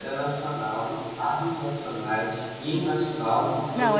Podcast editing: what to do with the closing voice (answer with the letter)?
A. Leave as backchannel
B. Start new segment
B